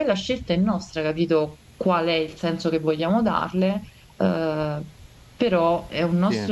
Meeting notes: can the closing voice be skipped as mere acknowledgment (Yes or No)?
Yes